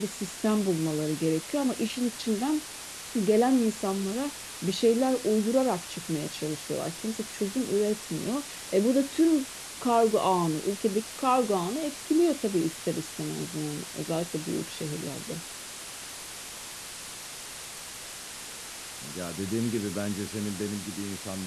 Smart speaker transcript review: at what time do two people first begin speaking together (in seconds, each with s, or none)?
none